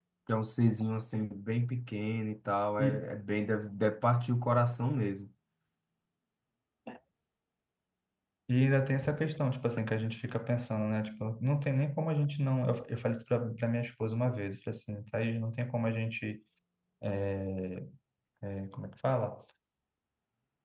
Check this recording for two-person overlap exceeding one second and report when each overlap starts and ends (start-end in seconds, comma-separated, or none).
none